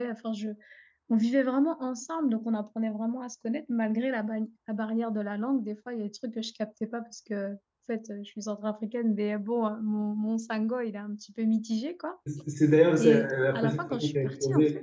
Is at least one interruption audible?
Yes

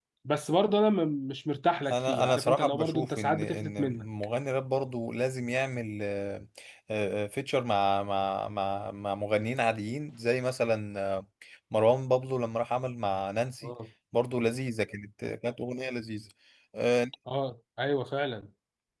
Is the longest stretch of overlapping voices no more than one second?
No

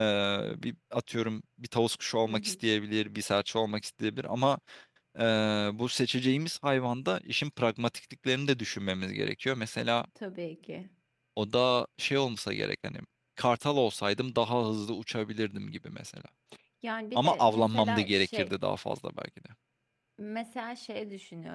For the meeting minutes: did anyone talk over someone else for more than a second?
Yes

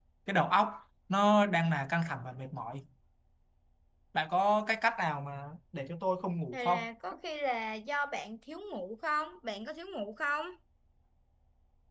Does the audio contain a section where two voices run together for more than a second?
No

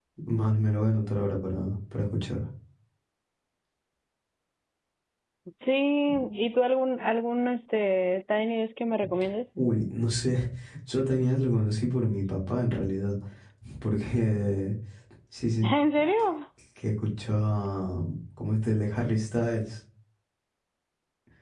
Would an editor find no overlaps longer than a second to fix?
Yes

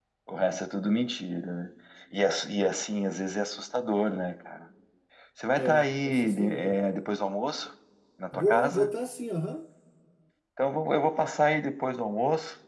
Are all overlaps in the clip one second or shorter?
No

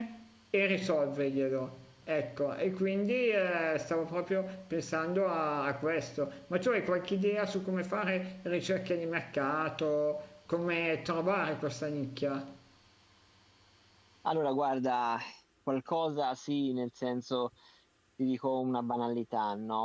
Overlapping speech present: No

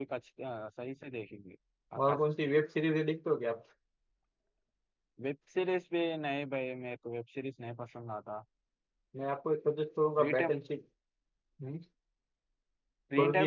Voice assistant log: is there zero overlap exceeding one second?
Yes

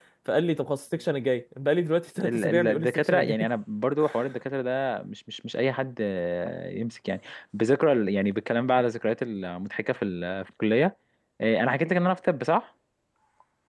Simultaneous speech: Yes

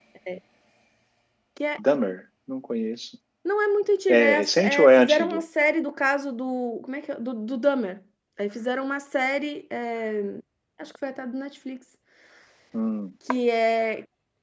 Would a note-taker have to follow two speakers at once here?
Yes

